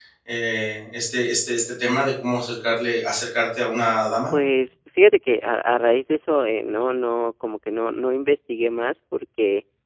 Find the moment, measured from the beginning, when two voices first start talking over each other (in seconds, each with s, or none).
none